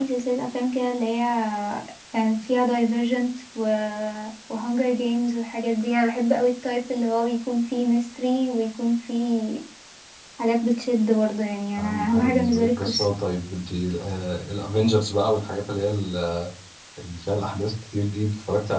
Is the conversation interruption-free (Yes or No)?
No